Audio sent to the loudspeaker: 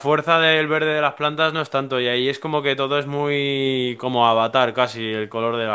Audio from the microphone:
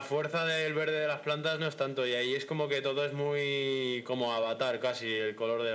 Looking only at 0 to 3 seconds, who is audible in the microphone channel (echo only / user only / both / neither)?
echo only